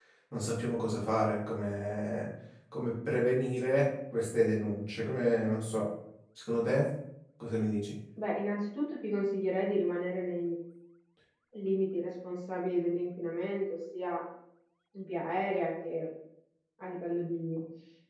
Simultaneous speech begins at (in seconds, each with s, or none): none